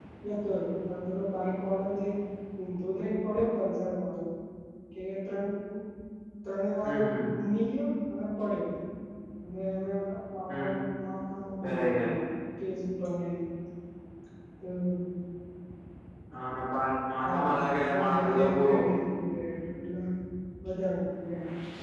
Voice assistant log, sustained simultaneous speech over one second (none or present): present